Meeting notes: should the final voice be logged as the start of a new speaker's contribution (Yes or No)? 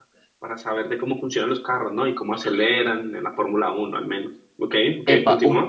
Yes